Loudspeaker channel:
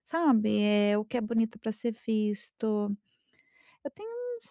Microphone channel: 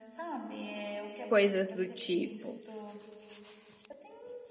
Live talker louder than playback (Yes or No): Yes